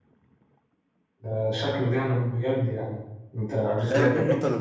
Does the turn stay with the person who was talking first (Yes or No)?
No